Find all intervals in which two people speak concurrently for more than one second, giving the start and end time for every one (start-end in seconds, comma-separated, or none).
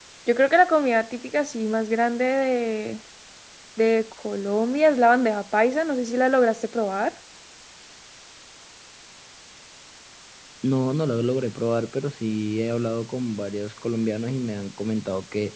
none